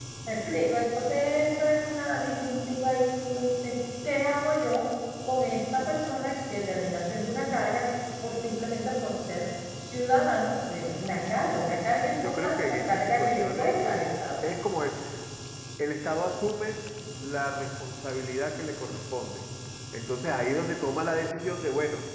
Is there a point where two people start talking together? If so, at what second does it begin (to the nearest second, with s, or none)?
12 s